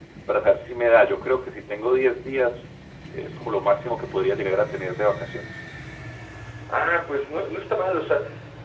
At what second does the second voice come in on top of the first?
none

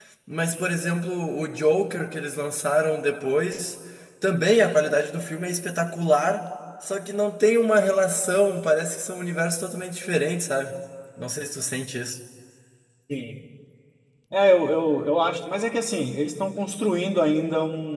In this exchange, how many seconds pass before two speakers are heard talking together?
none

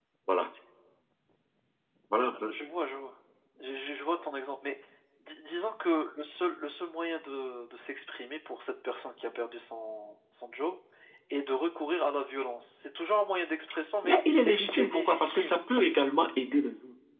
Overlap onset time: 14.0 s

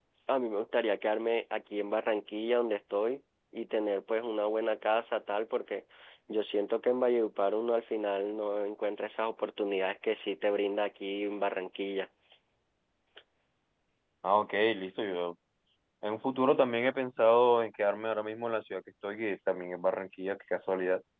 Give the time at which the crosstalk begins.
none

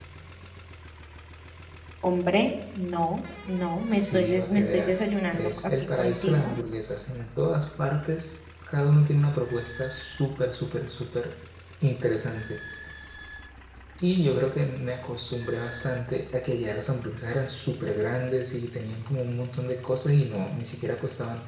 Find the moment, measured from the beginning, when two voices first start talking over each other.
3.9 s

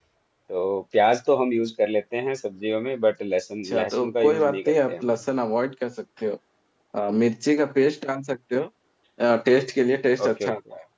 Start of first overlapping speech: 3.6 s

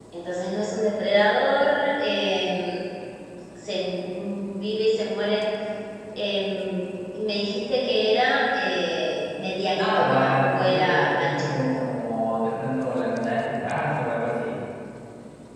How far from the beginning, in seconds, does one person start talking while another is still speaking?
9.8 s

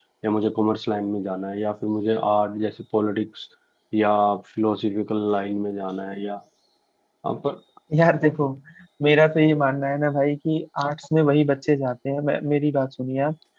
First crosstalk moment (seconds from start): none

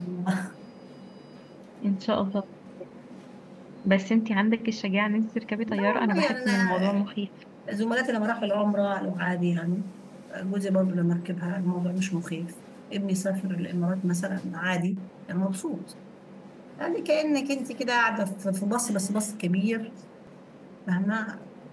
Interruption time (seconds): 5.7 s

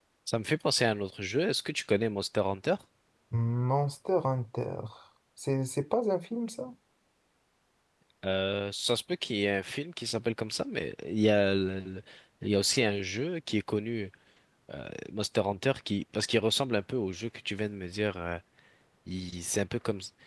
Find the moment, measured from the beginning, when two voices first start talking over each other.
none

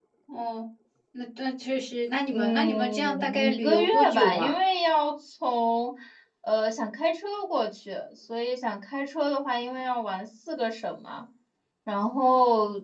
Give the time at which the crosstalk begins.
2.3 s

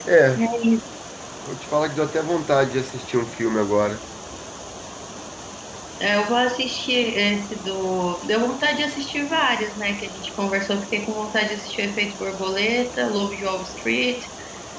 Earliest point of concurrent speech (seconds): none

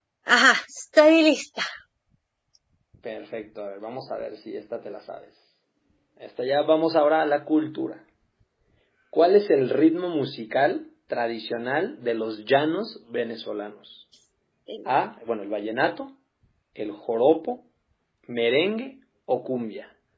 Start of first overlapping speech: none

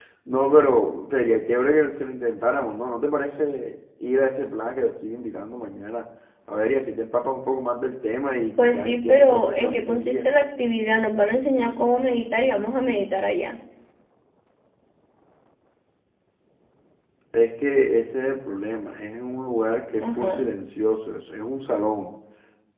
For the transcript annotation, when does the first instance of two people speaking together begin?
8.6 s

